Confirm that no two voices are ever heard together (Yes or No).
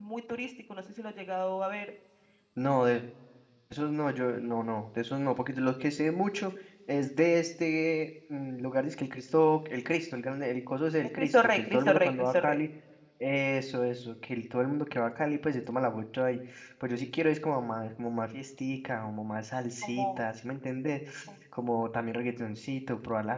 No